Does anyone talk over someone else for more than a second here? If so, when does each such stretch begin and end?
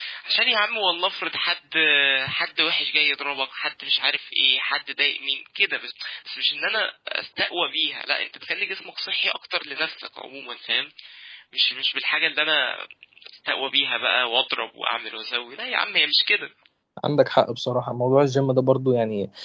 none

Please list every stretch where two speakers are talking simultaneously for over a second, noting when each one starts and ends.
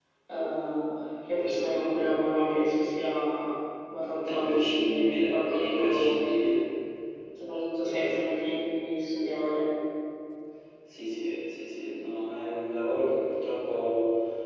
4.3-6.2

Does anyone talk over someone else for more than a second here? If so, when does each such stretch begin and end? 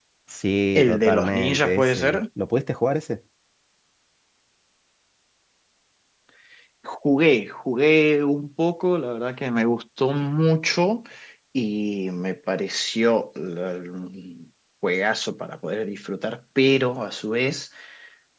0.7-2.2

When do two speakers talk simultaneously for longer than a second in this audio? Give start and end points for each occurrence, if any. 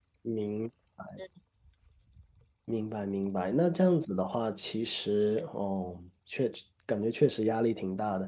none

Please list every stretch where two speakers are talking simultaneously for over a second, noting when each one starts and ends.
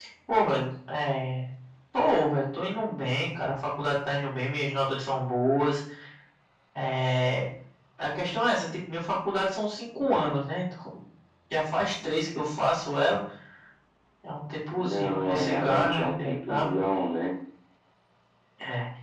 14.8-16.7

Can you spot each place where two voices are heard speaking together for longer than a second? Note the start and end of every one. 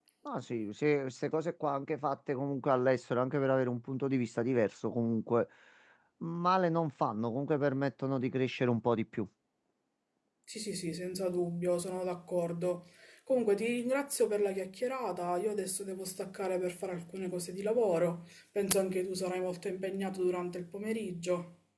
none

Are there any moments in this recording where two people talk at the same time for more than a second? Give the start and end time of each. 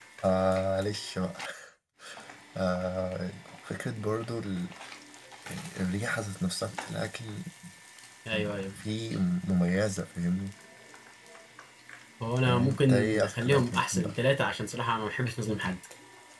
12.4-14.1

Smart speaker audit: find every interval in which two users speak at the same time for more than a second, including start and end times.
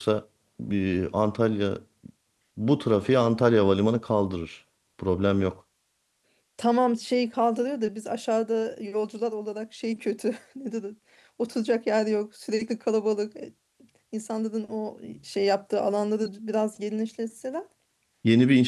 none

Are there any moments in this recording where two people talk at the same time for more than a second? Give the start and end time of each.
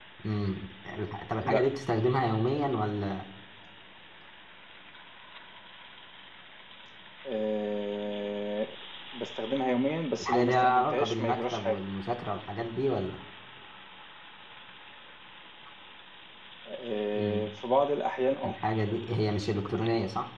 10.2-11.8

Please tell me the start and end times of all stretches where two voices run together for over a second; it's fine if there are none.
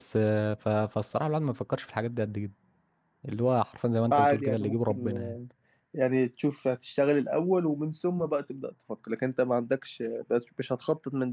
4.1-5.4

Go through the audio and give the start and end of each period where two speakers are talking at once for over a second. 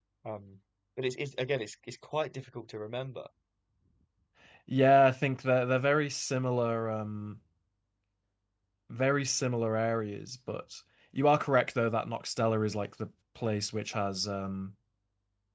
none

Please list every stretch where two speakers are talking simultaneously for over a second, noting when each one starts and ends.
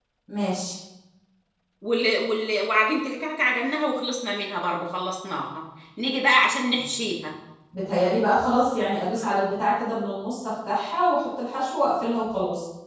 none

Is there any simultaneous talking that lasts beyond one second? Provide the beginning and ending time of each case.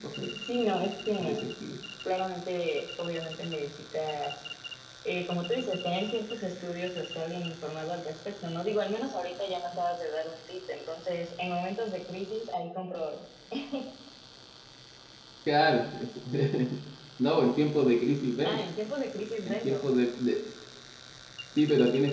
none

